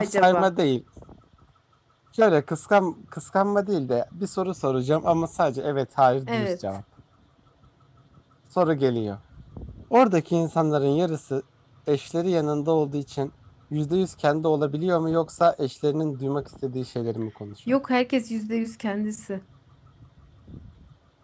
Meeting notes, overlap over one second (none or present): none